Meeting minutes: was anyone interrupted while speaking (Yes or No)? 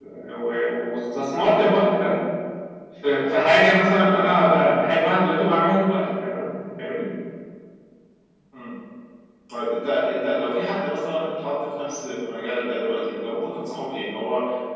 No